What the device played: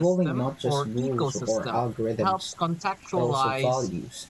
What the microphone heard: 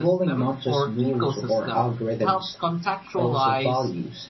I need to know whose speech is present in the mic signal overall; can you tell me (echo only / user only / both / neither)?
echo only